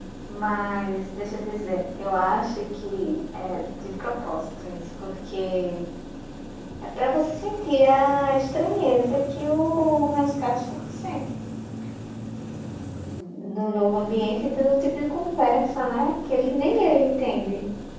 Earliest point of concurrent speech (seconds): none

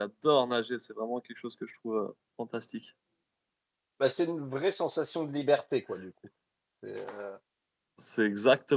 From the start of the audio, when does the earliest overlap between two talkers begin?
none

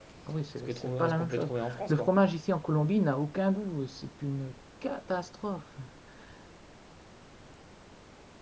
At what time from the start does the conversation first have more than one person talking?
0.7 s

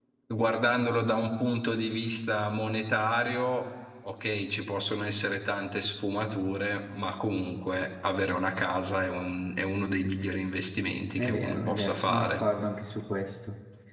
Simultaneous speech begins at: 11.2 s

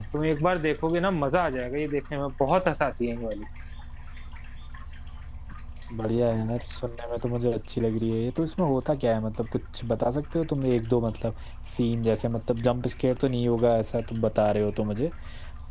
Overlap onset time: none

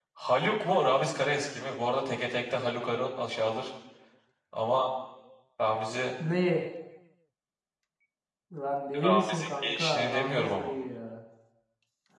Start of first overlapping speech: 9.0 s

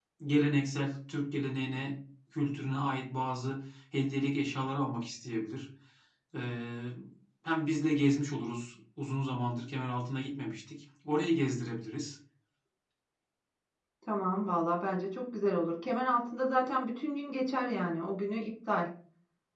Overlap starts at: none

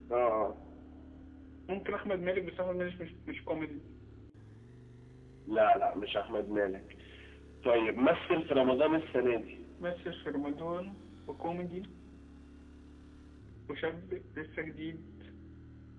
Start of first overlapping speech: none

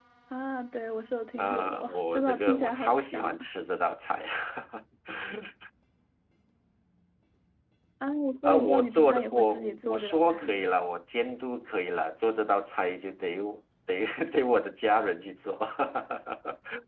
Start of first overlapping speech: 1.4 s

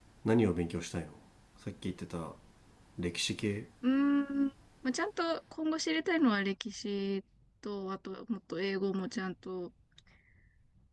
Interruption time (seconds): none

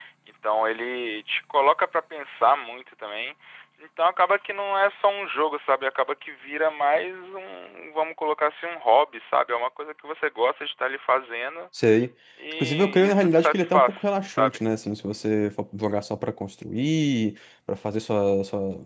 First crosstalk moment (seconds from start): 12.6 s

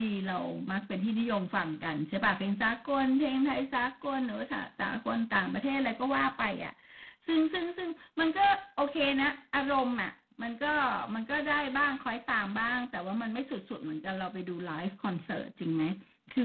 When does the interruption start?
none

